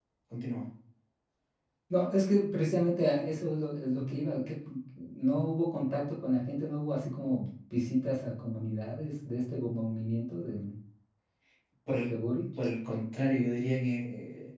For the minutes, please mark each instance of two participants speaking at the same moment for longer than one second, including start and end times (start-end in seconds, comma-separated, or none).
none